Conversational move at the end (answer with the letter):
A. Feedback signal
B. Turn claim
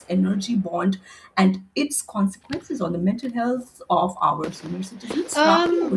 B